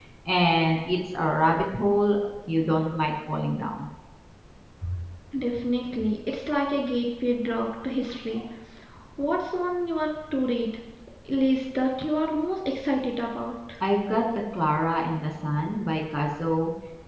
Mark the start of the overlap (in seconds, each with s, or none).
none